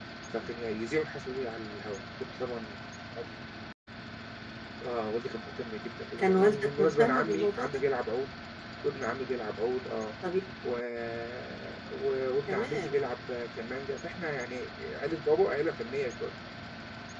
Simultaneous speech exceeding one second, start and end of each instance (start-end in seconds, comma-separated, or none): 6.2-7.8